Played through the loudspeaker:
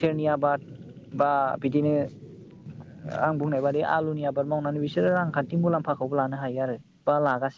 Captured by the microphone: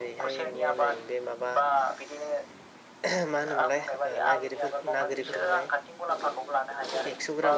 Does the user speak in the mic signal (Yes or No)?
Yes